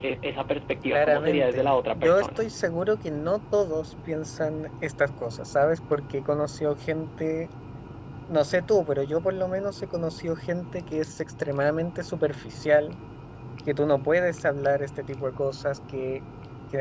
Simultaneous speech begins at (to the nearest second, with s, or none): 1 s